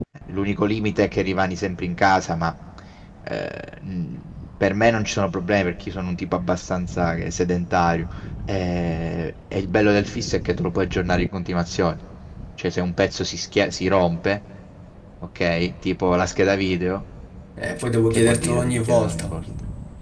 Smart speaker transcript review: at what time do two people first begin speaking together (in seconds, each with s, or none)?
18.1 s